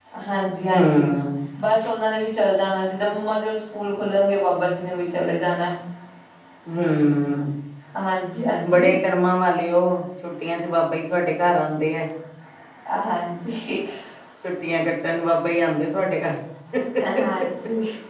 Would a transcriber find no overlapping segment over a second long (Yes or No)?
Yes